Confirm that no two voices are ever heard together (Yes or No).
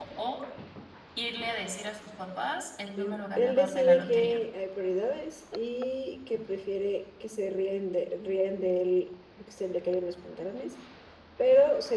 No